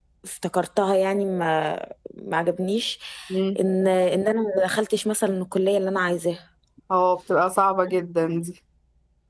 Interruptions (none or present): none